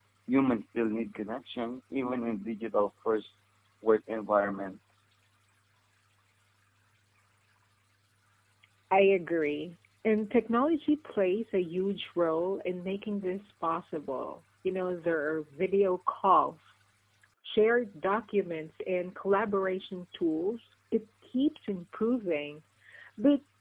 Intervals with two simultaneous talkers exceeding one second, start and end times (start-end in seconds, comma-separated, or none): none